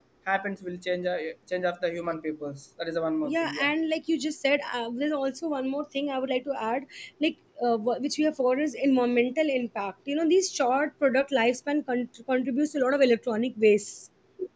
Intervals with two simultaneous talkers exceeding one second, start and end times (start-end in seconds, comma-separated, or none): none